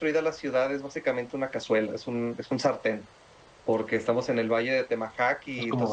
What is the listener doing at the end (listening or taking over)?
listening